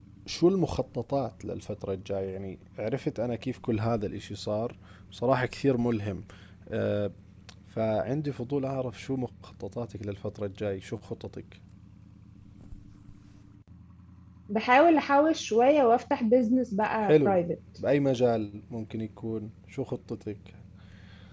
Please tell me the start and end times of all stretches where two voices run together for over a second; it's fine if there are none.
none

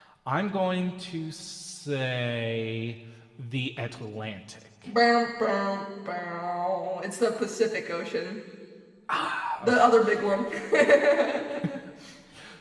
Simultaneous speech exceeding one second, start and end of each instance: none

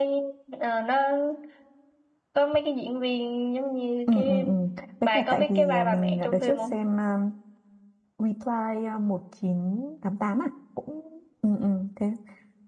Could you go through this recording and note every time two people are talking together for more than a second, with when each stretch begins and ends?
5.0-6.8

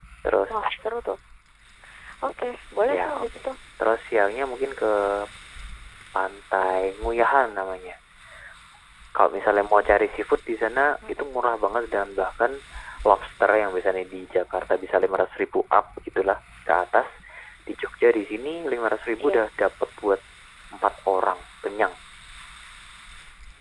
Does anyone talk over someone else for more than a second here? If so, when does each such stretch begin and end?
none

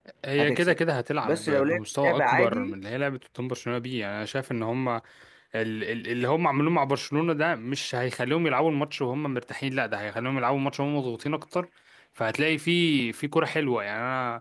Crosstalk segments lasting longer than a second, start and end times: 1.2-2.7

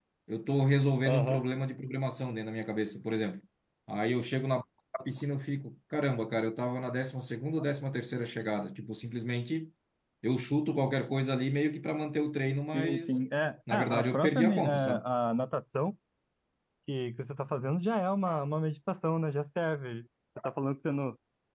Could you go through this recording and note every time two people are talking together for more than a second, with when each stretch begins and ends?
13.7-15.1

